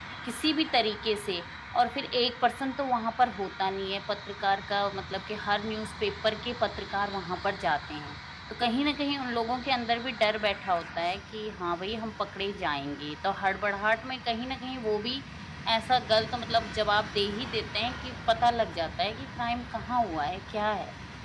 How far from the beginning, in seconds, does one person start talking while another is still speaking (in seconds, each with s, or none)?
none